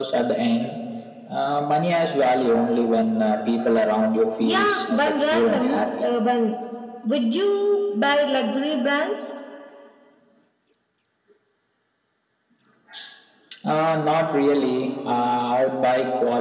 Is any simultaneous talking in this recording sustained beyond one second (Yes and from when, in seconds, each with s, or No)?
Yes, from 4.4 s